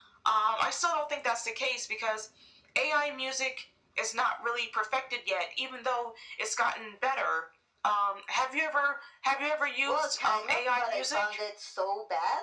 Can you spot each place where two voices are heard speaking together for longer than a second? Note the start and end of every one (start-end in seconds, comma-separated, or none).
9.8-11.2